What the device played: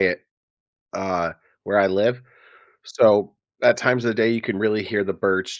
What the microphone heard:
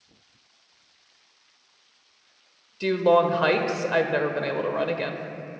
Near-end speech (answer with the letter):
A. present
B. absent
A